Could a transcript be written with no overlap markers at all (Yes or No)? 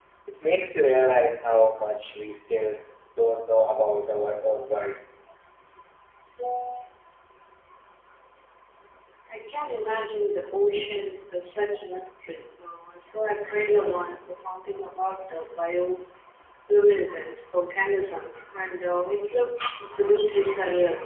Yes